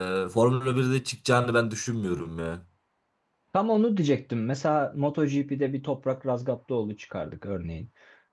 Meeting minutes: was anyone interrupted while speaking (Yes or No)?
No